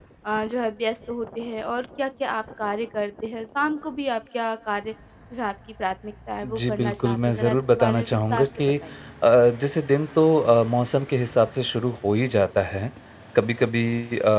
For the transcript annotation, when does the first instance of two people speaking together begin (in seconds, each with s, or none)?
6.4 s